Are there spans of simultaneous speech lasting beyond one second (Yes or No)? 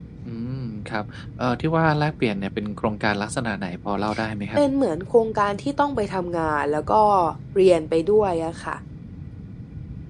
No